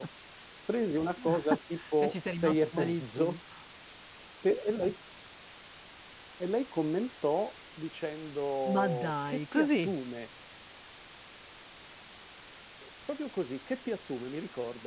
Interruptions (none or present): present